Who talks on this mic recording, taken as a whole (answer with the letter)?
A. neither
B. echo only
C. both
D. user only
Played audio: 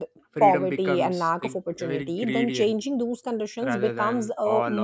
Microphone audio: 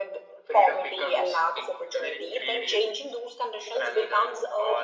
B